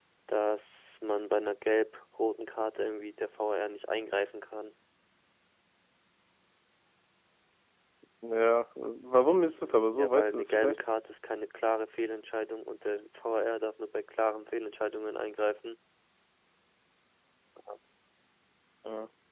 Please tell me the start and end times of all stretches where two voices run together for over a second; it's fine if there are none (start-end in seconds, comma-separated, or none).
9.6-10.8